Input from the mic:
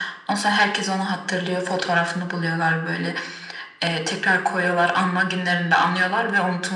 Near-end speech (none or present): none